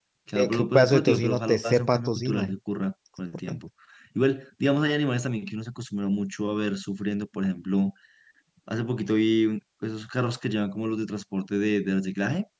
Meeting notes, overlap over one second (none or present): present